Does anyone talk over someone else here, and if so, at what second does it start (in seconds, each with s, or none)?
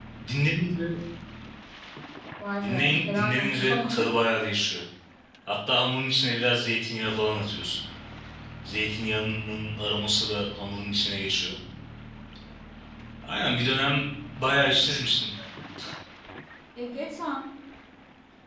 2.6 s